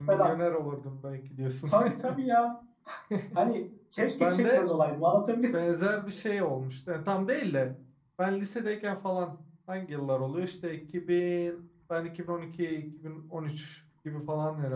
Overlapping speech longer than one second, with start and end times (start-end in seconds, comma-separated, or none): none